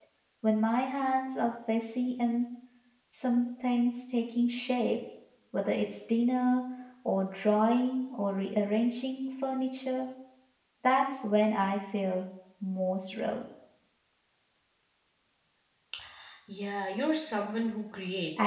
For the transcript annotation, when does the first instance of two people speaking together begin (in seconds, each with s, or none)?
none